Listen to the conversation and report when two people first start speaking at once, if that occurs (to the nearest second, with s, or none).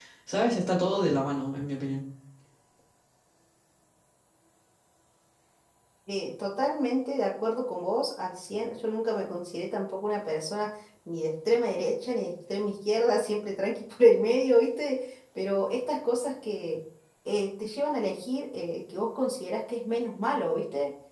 none